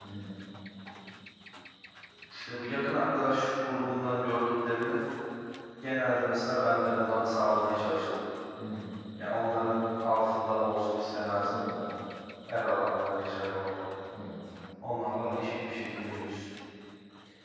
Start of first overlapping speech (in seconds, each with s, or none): none